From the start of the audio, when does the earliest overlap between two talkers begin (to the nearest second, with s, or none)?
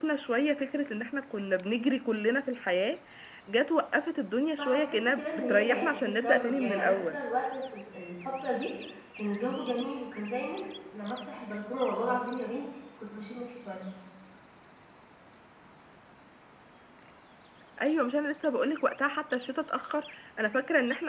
5 s